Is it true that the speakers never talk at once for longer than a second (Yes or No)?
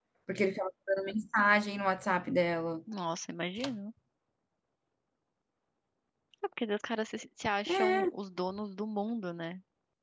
Yes